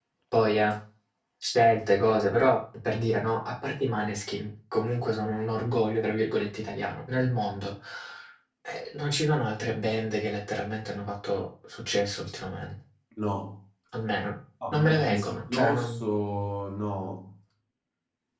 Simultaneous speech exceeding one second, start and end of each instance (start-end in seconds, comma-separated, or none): 14.7-16.0